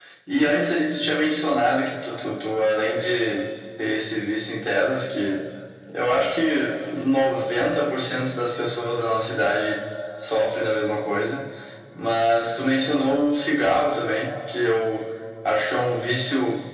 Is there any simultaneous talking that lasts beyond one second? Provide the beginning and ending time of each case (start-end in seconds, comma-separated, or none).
none